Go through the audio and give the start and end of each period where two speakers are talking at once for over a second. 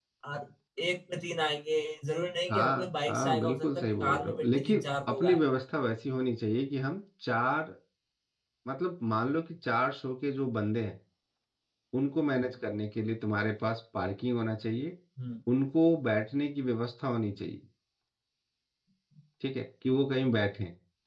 2.5-5.4

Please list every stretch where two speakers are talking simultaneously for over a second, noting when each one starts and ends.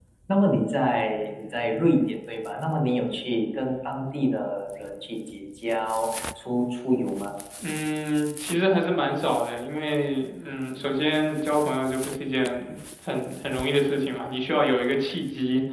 none

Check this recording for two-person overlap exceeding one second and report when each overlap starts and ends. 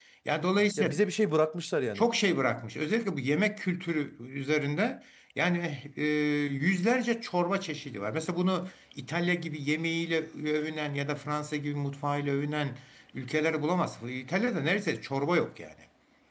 none

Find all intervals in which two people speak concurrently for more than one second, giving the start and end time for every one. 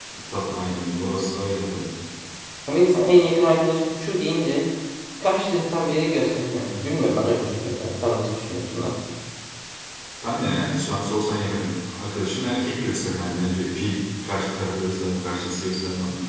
none

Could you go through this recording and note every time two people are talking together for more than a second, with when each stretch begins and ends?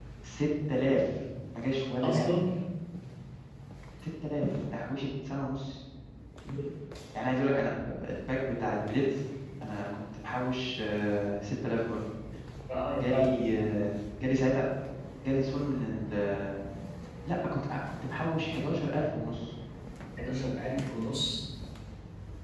none

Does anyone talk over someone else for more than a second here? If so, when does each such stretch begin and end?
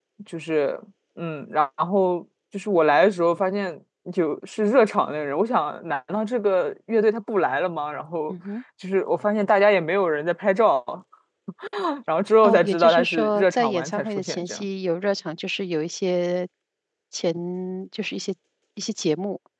12.4-14.7

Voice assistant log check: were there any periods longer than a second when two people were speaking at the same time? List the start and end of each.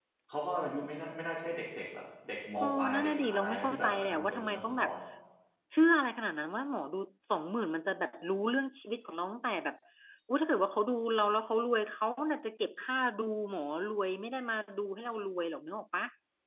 2.6-4.9

